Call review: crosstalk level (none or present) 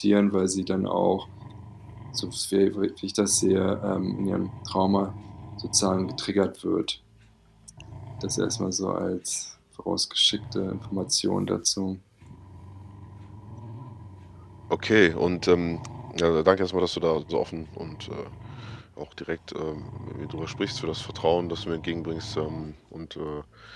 none